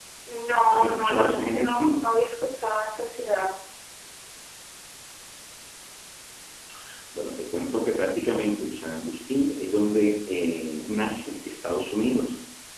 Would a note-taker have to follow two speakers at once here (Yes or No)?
Yes